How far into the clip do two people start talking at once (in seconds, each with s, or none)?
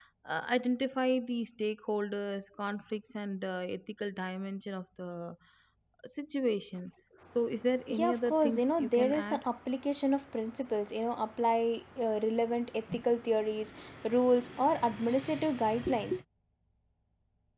7.9 s